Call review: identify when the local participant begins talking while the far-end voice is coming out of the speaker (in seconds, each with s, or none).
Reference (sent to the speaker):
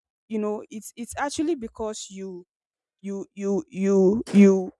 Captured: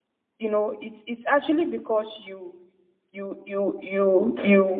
none